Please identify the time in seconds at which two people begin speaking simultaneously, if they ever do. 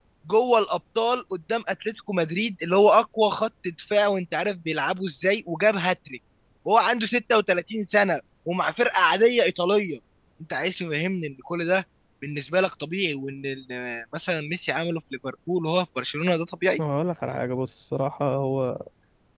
none

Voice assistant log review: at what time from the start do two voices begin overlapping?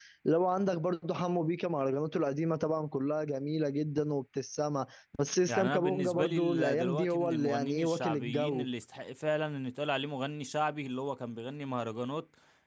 5.5 s

